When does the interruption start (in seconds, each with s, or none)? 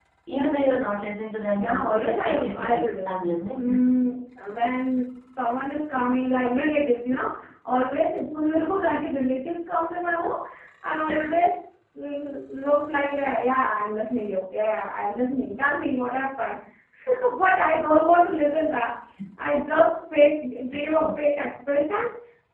1.6 s